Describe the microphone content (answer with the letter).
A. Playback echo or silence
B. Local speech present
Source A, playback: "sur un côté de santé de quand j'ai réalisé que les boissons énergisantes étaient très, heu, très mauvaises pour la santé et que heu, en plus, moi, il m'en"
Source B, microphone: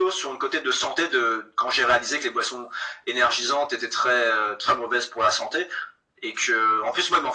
A